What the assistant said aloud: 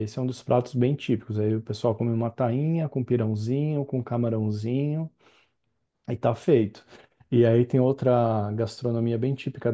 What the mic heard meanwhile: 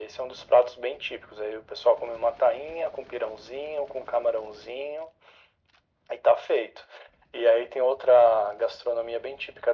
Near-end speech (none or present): none